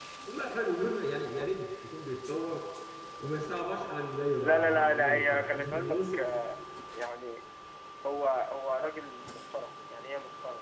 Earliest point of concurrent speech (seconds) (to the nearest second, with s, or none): 4 s